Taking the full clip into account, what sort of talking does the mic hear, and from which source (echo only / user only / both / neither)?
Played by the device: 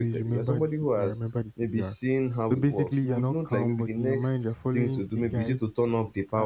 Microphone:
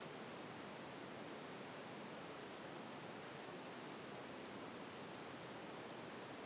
neither